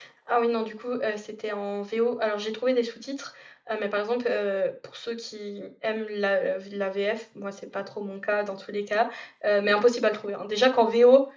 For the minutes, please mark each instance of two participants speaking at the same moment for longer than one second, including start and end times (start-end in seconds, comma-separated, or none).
none